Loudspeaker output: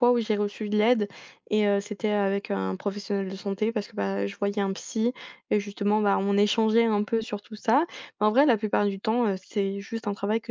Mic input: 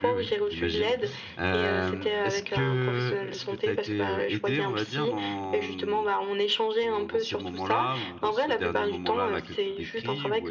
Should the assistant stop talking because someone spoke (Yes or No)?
Yes